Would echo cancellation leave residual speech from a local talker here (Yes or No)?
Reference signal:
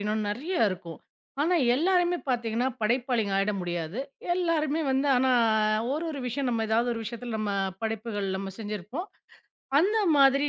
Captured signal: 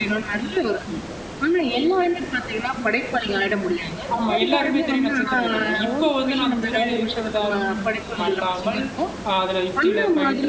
Yes